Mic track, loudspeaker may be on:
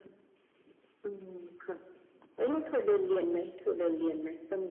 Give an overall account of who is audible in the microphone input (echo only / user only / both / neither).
echo only